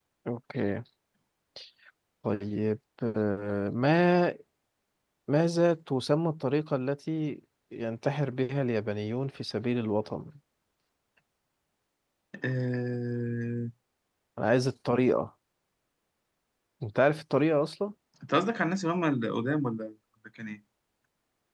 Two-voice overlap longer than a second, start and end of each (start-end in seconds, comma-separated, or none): none